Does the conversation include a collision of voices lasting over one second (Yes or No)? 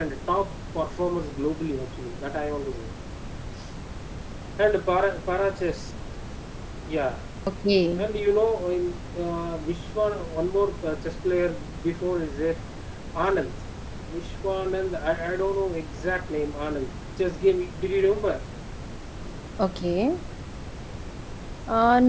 No